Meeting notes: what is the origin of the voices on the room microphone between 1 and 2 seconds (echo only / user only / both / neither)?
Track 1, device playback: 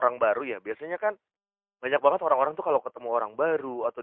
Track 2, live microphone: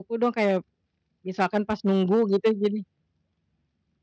user only